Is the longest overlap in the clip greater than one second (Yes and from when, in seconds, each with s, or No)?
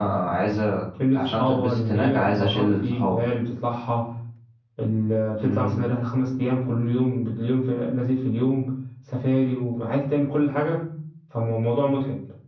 Yes, from 1.1 s